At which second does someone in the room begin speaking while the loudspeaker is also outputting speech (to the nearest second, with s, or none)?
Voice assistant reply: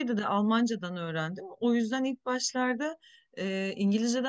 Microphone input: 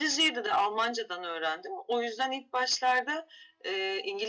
none